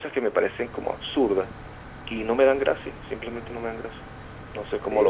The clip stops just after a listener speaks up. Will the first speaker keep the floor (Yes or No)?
No